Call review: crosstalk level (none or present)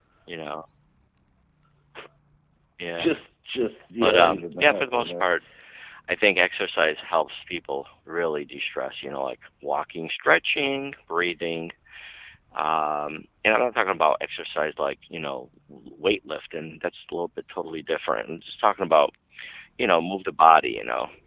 present